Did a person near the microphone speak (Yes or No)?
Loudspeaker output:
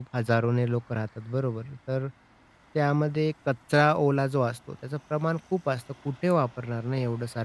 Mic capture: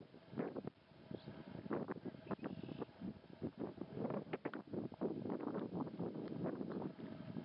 No